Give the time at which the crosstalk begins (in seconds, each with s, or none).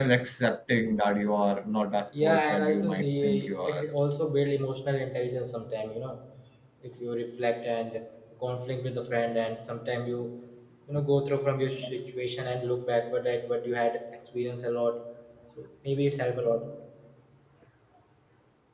2.1 s